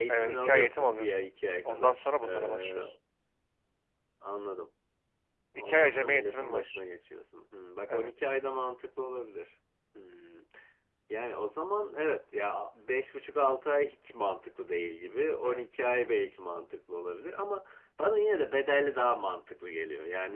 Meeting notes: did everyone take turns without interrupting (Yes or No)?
No